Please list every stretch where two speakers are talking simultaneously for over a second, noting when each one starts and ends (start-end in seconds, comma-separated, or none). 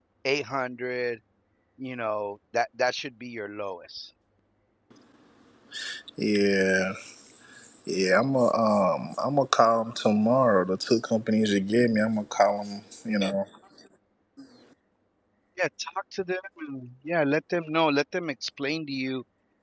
none